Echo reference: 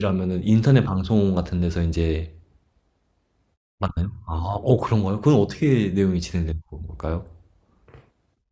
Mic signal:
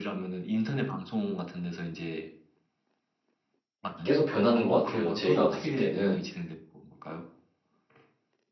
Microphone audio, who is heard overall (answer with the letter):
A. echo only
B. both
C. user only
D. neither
B